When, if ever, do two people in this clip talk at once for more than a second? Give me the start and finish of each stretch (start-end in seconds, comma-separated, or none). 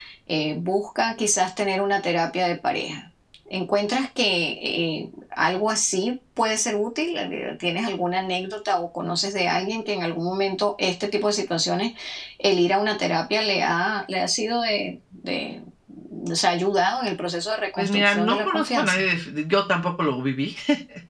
17.8-19.1